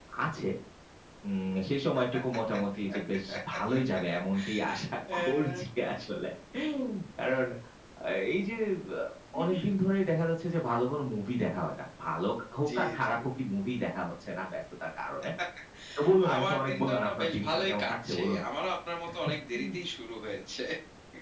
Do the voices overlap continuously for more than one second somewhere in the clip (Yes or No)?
Yes